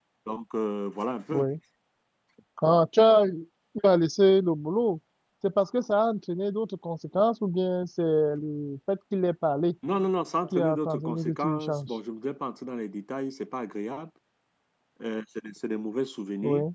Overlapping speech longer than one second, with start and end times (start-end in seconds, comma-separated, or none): 10.5-11.9